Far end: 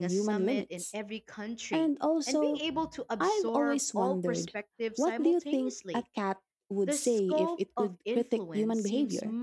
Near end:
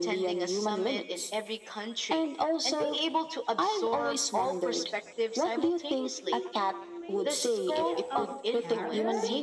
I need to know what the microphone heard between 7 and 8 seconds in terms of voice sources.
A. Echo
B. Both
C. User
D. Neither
B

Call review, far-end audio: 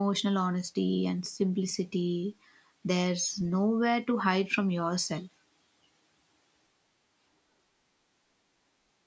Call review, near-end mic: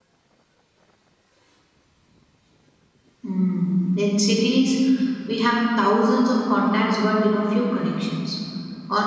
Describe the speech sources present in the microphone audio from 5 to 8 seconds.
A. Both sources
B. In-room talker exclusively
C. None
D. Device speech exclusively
B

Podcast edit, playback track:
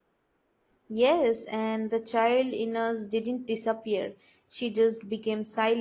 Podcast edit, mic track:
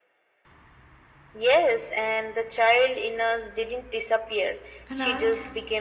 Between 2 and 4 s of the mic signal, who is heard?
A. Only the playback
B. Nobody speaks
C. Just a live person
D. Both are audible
A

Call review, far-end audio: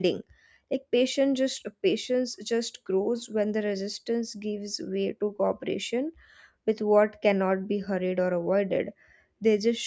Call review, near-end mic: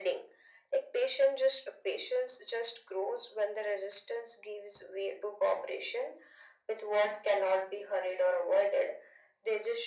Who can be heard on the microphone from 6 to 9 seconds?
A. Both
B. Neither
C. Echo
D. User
C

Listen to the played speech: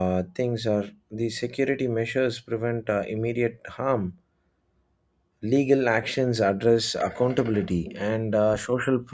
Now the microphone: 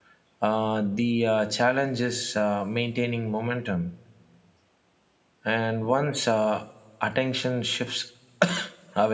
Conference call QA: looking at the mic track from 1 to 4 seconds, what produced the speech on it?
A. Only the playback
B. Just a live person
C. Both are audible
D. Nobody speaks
B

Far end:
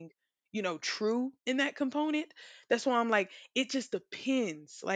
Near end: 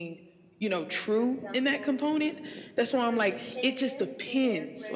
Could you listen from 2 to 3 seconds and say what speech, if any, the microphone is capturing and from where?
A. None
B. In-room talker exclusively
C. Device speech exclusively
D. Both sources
D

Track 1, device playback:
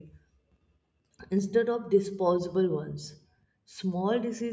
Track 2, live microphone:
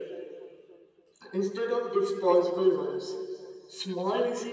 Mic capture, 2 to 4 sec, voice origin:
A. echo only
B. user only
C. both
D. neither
A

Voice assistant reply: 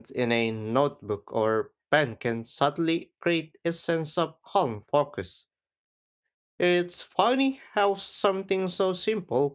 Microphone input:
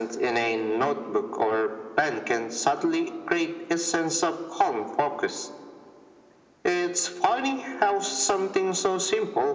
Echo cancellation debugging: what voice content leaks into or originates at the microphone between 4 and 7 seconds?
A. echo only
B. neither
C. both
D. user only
A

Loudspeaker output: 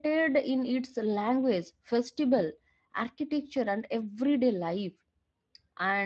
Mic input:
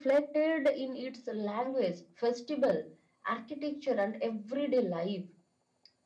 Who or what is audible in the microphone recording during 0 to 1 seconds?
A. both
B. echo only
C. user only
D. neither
B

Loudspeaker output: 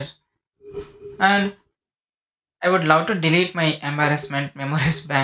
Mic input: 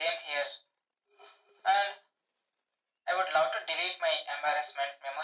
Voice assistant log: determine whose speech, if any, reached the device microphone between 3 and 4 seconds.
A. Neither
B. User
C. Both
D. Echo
D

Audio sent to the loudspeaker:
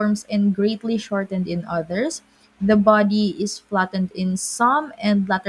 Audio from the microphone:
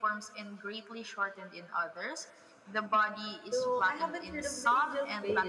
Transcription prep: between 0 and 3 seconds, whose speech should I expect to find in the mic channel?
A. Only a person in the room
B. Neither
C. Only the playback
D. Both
C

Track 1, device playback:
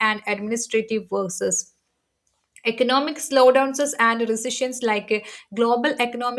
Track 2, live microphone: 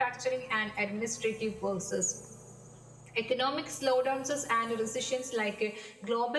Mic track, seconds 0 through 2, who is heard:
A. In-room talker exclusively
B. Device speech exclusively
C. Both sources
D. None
B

